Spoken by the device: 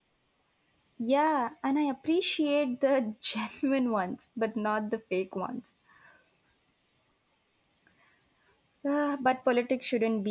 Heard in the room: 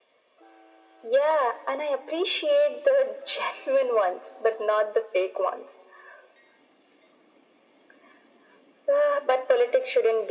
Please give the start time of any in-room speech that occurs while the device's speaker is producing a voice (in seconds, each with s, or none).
none